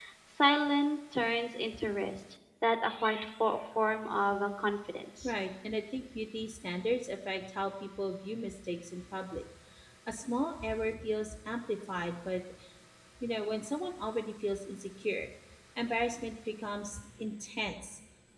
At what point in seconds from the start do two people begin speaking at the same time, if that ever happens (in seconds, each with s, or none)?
none